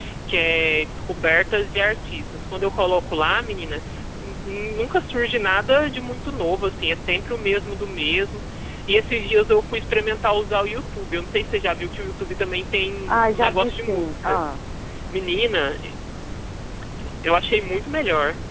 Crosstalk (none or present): present